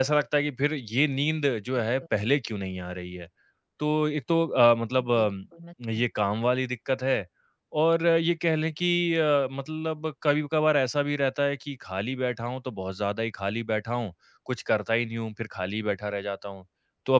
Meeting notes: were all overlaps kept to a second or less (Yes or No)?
Yes